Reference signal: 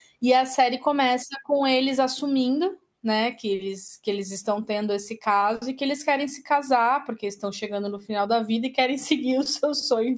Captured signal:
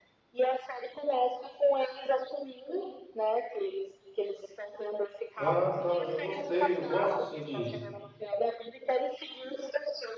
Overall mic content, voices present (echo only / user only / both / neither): both